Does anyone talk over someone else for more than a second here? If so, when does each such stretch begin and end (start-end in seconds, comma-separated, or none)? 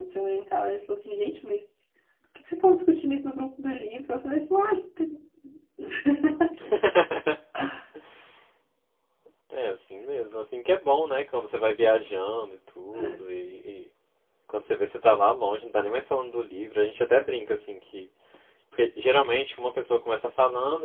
none